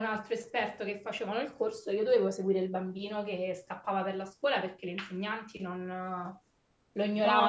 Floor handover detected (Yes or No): Yes